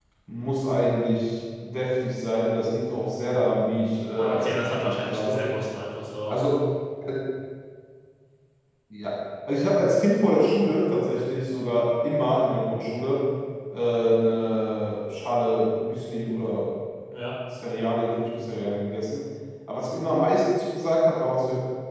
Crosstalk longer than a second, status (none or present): present